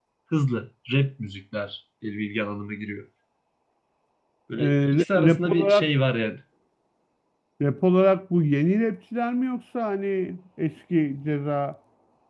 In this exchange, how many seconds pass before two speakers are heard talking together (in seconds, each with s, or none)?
4.6 s